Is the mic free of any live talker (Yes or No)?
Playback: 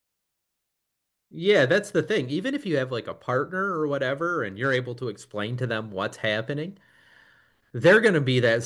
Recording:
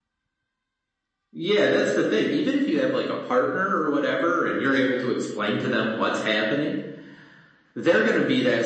Yes